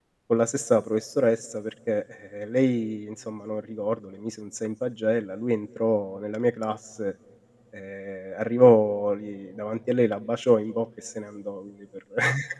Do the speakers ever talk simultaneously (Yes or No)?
No